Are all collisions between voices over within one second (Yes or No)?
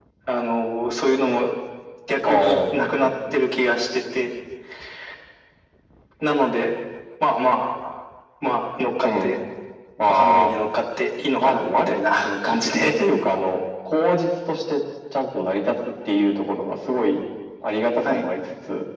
No